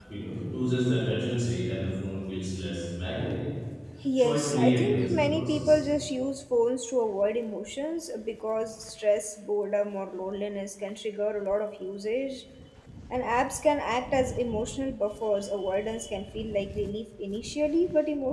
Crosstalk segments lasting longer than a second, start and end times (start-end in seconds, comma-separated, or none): 4.2-5.8